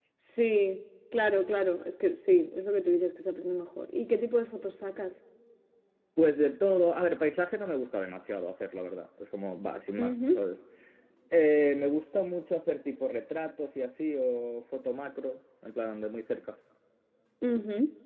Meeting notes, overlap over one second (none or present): none